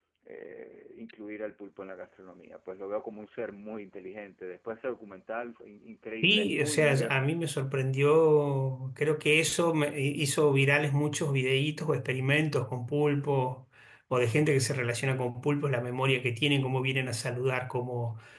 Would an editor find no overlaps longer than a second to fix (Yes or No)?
No